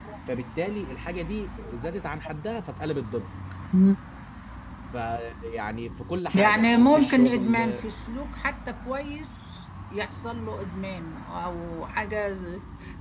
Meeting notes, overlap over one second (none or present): present